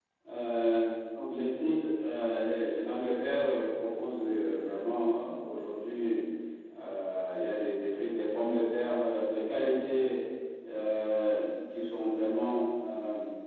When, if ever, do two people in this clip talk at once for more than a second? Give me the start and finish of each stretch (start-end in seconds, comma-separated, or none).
none